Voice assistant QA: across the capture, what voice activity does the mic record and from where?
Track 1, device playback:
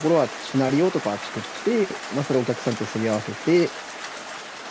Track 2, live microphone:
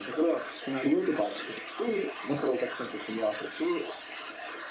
echo only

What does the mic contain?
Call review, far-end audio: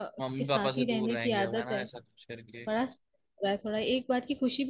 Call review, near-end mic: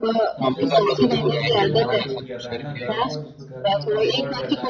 both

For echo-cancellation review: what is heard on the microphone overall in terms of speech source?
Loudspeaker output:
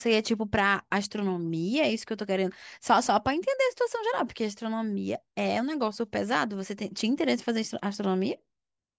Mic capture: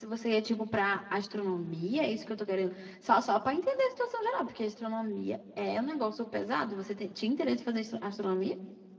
echo only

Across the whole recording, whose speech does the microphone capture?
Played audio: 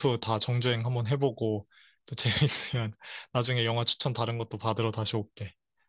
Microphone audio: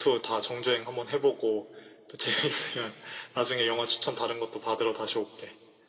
echo only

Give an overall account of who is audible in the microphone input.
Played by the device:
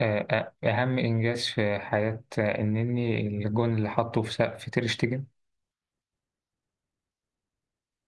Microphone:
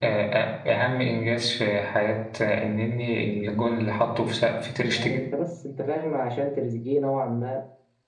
both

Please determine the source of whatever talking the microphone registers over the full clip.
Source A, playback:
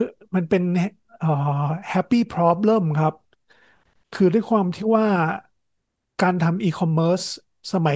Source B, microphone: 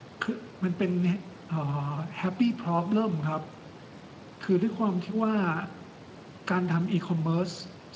echo only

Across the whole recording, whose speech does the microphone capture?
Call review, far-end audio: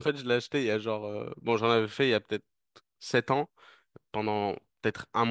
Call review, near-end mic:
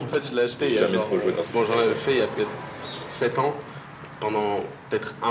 both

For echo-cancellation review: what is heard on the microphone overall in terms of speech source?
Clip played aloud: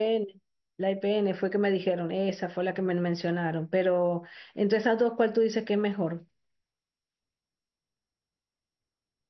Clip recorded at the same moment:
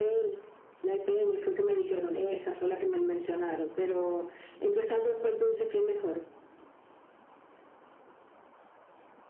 echo only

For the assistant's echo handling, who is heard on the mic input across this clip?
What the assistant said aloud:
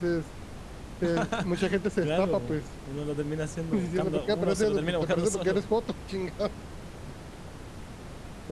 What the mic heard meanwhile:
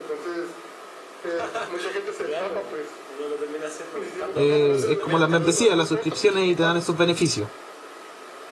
both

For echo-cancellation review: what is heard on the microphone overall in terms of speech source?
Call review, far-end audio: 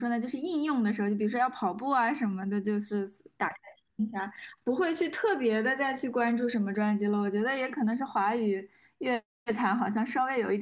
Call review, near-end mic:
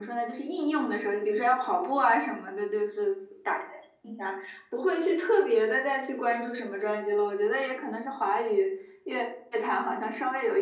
echo only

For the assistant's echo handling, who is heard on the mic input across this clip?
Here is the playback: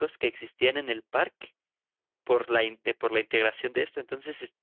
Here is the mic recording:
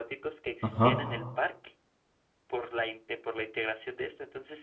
both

